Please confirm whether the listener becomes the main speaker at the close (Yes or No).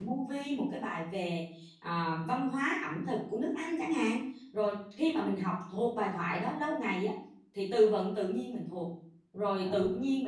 No